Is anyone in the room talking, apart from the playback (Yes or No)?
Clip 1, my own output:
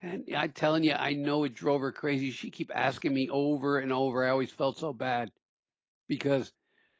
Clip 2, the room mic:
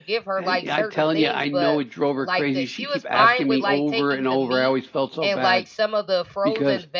Yes